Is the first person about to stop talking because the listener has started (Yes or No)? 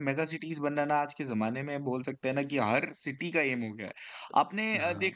No